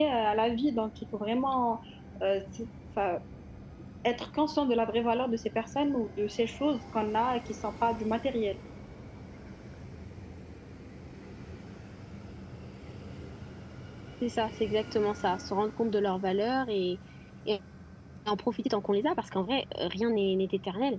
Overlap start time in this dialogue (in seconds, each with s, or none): none